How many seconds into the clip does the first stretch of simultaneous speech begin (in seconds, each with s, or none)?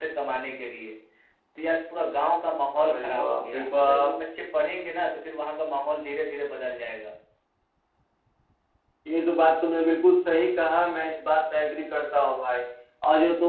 2.8 s